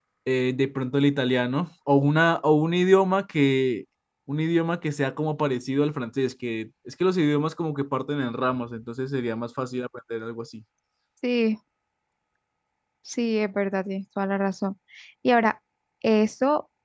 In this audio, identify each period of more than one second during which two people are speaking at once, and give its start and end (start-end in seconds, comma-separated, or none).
none